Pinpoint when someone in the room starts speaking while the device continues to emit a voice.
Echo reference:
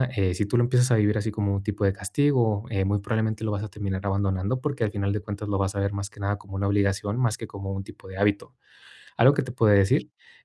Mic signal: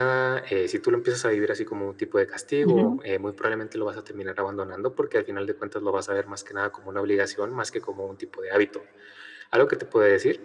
2.6 s

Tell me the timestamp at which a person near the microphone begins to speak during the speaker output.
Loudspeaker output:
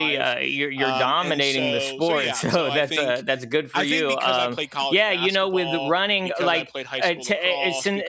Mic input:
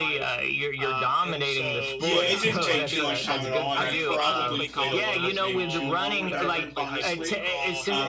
2.0 s

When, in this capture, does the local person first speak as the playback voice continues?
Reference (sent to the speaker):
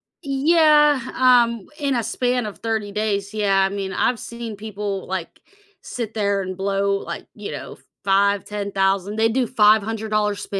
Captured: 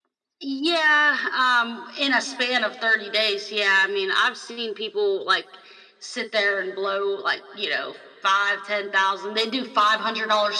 none

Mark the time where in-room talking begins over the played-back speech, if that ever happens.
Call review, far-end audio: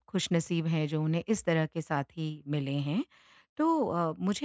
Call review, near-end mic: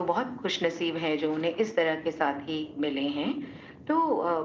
none

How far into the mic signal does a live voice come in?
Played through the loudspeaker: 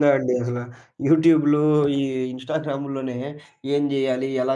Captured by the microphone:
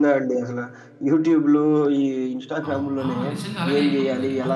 2.7 s

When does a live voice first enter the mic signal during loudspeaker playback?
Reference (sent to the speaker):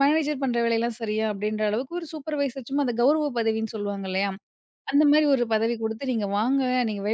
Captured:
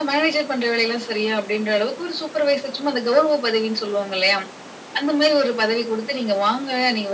none

